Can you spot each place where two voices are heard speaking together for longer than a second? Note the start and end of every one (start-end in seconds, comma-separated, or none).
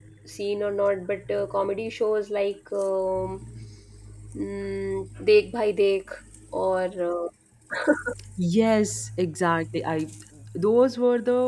none